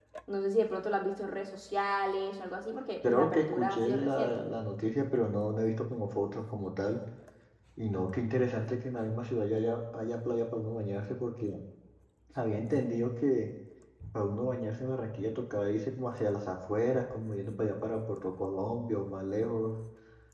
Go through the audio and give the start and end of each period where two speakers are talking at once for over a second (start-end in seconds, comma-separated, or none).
3.1-4.4